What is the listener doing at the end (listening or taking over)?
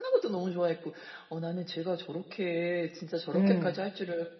listening